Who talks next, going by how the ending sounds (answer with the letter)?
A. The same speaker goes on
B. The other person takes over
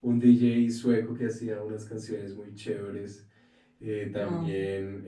A